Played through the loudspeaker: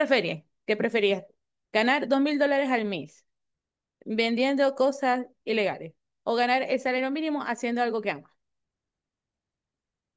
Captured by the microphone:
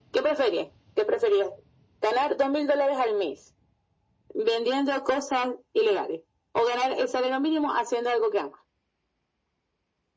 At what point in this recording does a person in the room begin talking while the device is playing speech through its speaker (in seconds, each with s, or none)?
none